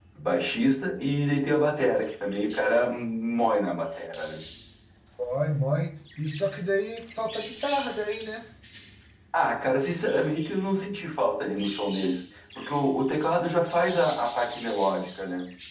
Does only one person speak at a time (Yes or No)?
Yes